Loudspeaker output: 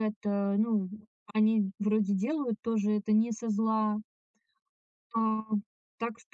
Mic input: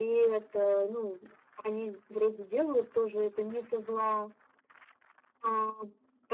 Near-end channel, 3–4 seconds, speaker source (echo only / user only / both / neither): echo only